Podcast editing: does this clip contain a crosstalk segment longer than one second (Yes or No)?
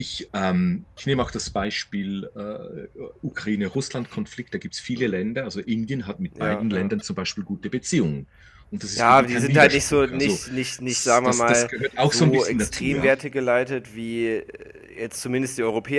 Yes